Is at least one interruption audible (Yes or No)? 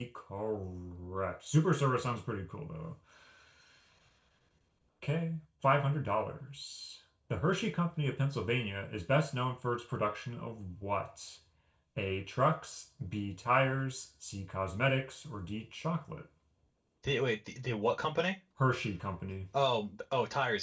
No